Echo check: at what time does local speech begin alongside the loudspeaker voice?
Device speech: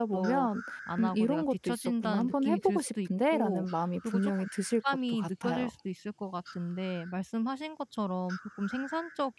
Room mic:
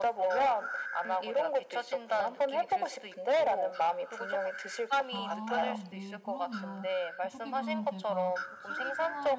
5.1 s

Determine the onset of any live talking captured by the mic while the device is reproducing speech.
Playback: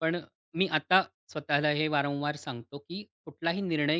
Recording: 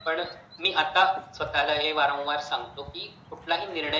none

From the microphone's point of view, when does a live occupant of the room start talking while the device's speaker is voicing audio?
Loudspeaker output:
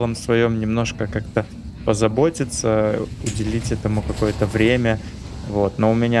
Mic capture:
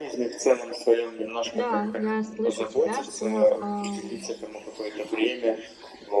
1.5 s

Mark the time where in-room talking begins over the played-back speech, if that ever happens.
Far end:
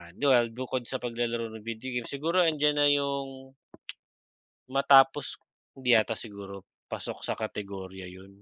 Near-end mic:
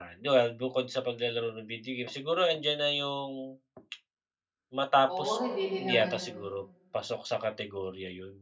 5.1 s

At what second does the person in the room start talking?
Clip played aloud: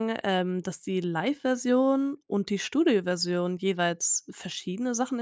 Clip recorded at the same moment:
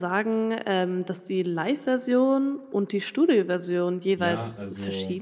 4.1 s

